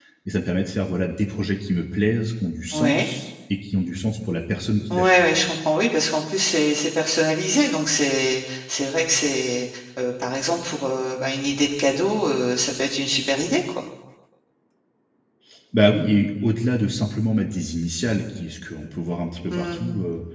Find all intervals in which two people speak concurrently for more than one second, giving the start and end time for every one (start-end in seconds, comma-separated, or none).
none